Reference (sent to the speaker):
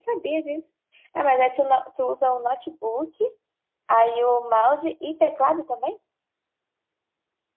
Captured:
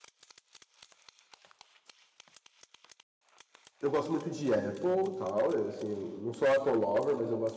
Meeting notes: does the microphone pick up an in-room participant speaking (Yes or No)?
Yes